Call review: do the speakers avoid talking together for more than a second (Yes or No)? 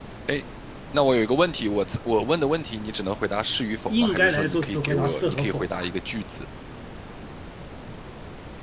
No